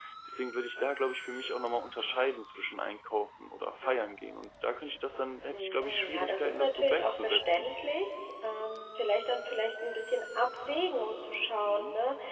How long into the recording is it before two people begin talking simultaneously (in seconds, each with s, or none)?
5.5 s